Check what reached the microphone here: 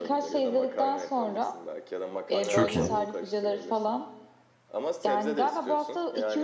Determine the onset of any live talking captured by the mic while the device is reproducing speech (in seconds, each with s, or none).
2.5 s